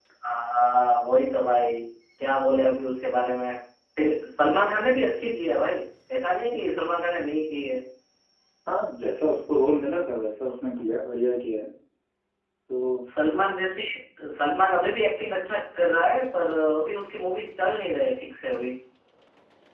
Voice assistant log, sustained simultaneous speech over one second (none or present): none